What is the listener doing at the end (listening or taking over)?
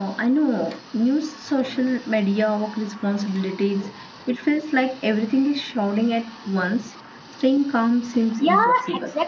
taking over